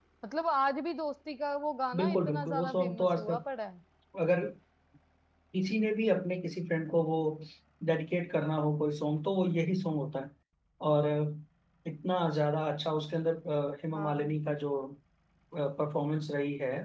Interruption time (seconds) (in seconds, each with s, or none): 2.0 s